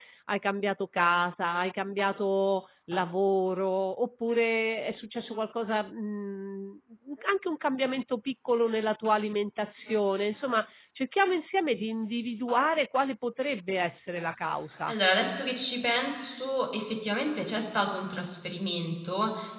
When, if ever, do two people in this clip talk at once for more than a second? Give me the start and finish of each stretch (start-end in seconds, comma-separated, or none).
none